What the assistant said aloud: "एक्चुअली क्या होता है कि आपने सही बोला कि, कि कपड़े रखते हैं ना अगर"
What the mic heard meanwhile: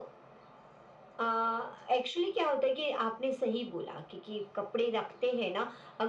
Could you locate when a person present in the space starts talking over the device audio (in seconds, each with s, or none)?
none